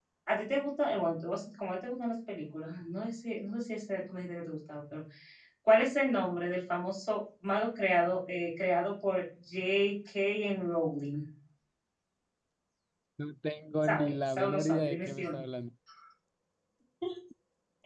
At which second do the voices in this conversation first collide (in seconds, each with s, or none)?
13.9 s